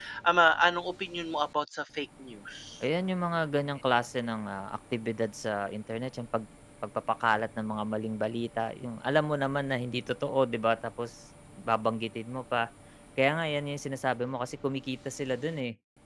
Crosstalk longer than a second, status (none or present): none